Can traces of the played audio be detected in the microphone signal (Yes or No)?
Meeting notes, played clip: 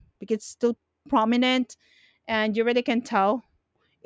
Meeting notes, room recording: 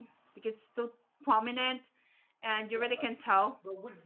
Yes